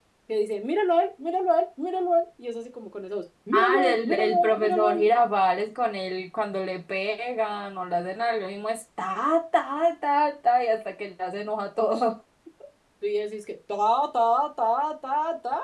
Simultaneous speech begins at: 4 s

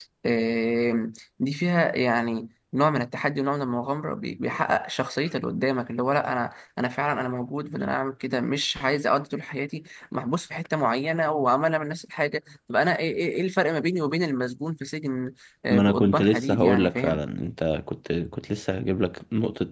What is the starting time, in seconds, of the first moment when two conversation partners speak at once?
16 s

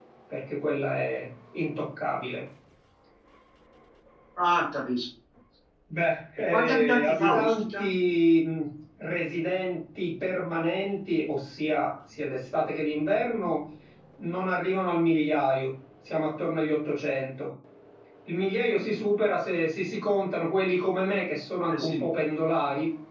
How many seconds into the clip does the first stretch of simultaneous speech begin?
7 s

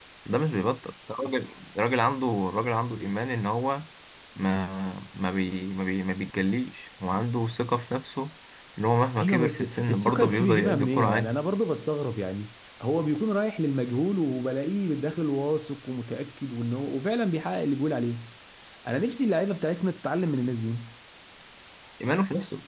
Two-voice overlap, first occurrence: 9 s

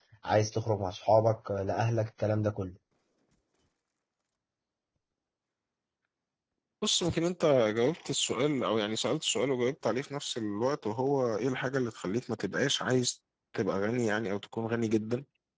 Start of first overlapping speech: none

